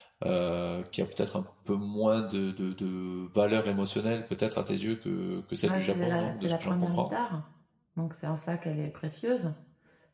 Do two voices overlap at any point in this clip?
Yes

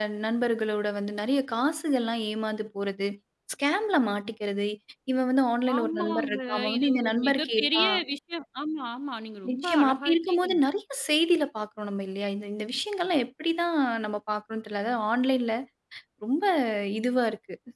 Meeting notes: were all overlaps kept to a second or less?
No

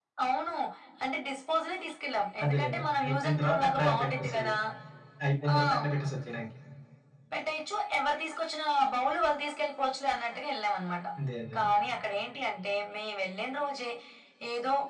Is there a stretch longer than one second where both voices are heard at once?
Yes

